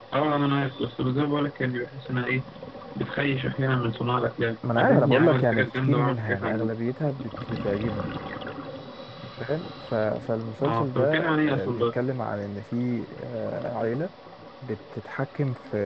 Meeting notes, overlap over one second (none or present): present